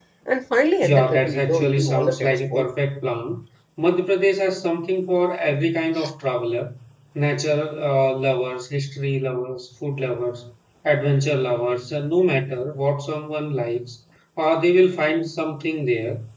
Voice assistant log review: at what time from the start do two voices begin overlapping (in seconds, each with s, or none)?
0.8 s